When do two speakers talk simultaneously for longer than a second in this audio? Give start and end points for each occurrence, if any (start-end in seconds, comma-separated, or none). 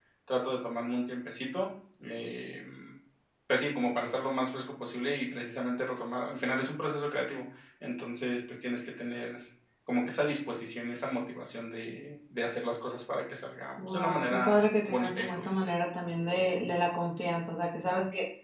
13.9-15.5